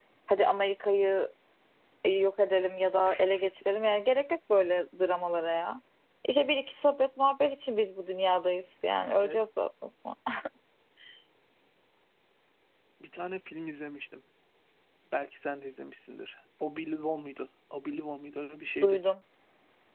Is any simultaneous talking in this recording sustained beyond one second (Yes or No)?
No